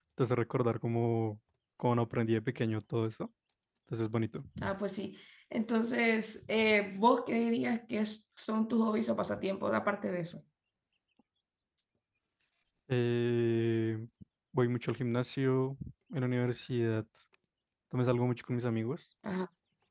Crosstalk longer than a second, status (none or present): none